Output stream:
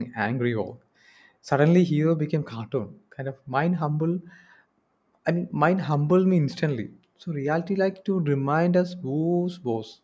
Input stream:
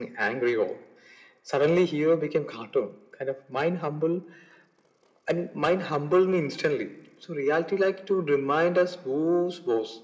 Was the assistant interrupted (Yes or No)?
No